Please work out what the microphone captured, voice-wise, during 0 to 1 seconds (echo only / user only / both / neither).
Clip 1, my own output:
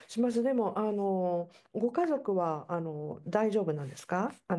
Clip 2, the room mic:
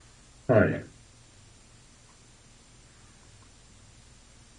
user only